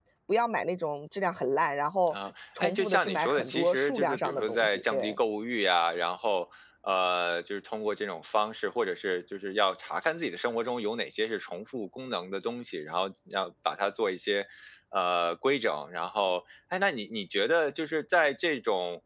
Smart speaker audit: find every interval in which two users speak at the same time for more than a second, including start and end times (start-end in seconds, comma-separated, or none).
2.6-5.2